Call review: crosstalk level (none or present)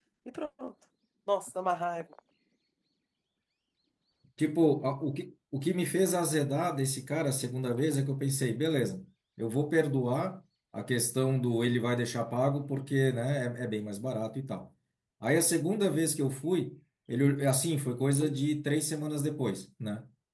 none